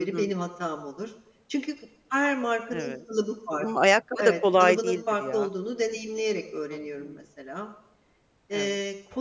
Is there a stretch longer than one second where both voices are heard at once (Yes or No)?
Yes